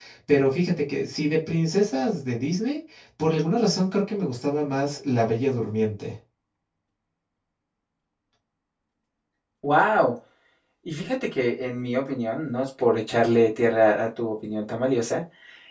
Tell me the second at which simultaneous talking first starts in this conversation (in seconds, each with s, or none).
none